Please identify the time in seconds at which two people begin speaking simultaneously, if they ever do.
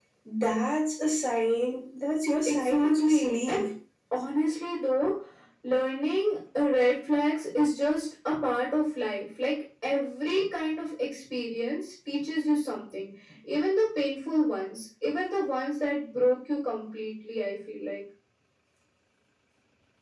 2.5 s

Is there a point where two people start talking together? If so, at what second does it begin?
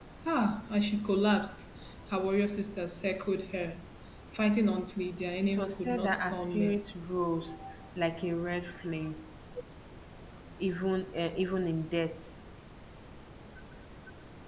5.4 s

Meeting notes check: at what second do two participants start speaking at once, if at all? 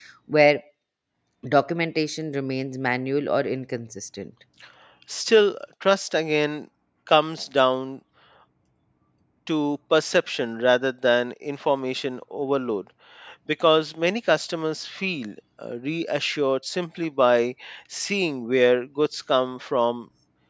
none

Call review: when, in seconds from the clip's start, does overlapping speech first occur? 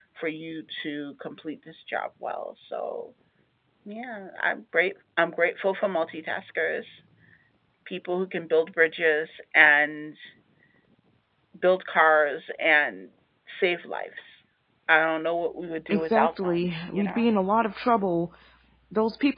15.9 s

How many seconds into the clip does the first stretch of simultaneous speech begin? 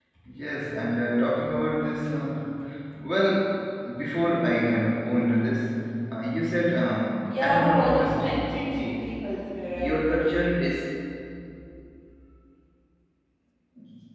7.3 s

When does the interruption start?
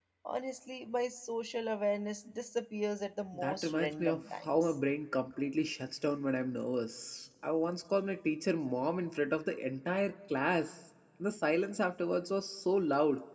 3.3 s

